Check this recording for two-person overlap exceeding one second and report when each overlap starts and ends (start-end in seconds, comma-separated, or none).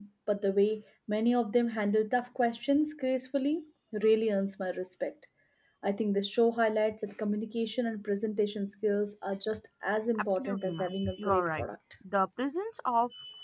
10.2-11.7